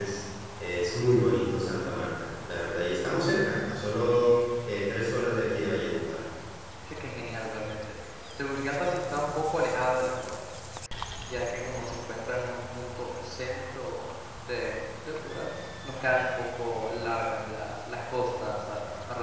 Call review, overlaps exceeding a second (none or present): none